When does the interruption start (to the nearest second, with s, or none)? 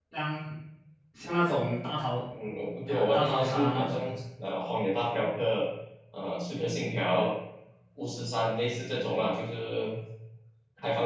3 s